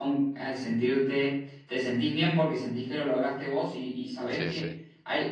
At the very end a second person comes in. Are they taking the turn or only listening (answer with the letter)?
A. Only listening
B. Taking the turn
A